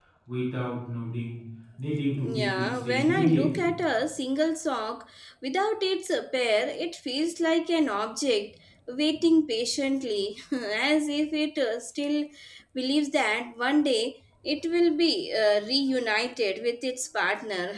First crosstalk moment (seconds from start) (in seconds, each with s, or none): 2.1 s